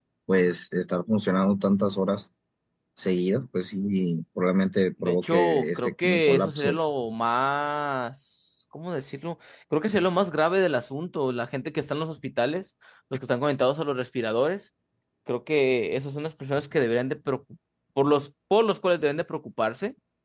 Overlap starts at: 5 s

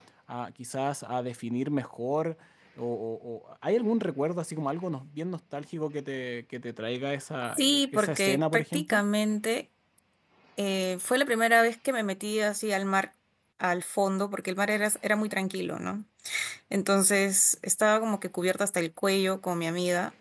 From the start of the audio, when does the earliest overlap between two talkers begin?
7 s

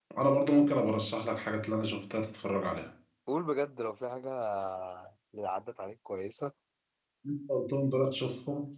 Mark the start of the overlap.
none

